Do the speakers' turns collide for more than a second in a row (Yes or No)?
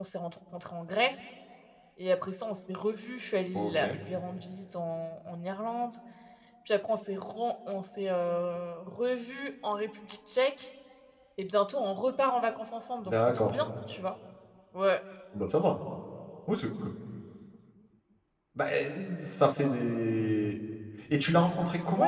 No